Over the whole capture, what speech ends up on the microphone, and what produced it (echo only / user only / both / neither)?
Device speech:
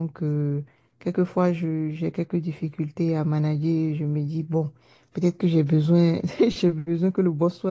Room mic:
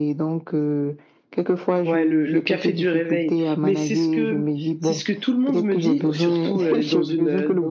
both